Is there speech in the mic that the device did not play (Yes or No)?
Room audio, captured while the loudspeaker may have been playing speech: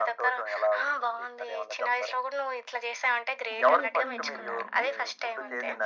Yes